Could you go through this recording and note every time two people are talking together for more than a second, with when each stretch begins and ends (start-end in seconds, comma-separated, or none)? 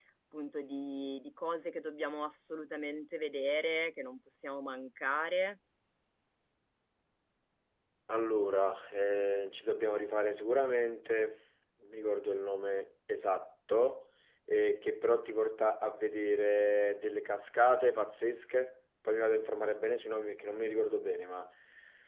none